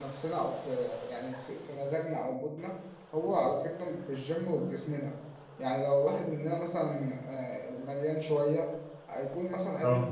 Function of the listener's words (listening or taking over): listening